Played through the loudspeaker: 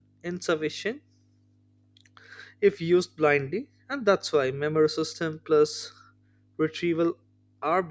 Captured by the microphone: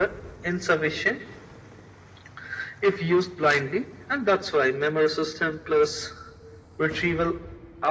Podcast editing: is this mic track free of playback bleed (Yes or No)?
No